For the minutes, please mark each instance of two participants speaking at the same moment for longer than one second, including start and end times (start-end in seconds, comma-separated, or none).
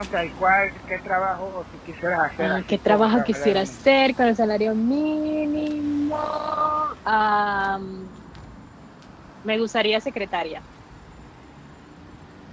2.4-3.7